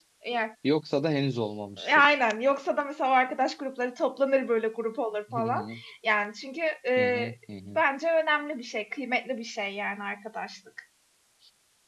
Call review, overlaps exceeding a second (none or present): none